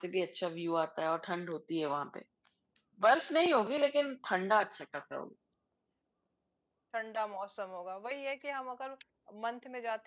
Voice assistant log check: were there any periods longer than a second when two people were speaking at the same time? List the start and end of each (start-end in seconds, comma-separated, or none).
none